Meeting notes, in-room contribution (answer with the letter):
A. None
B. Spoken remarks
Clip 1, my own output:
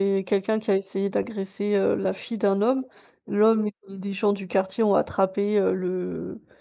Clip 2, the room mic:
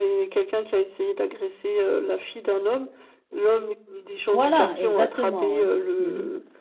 B